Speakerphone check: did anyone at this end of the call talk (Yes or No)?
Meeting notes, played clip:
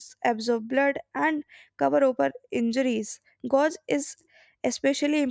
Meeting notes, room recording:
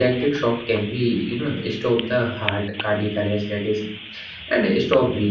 Yes